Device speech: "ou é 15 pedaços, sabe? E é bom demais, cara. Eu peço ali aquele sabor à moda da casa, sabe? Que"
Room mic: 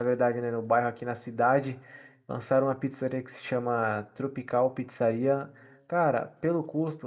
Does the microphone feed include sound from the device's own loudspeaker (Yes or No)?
No